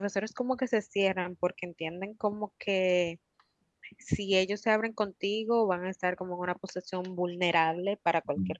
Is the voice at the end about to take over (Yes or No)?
Yes